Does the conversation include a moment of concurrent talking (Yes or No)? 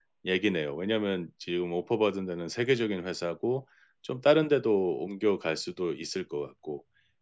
No